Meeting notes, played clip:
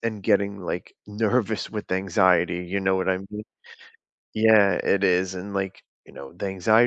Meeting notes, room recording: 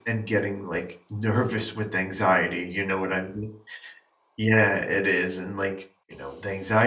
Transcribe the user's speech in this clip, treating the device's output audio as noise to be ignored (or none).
none